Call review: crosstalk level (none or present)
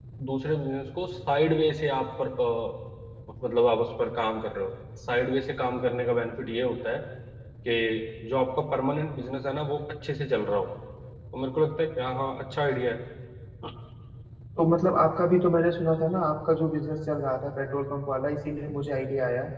none